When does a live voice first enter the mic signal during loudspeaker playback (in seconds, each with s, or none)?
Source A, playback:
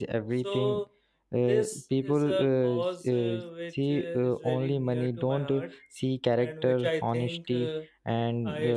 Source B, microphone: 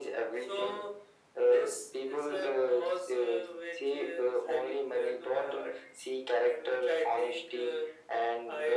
none